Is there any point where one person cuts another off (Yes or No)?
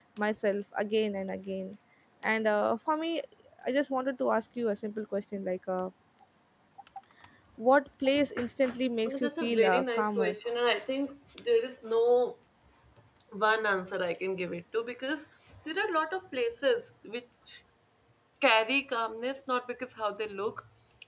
Yes